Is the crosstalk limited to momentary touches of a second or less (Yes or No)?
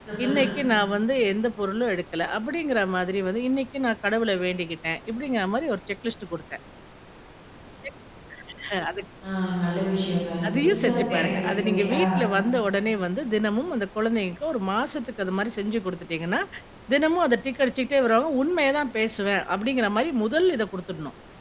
No